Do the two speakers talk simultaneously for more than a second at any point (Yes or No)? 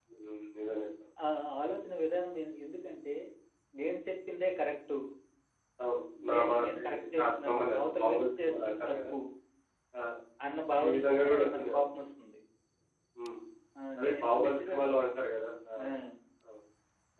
Yes